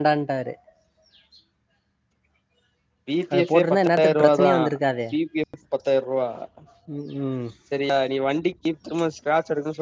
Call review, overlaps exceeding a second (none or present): present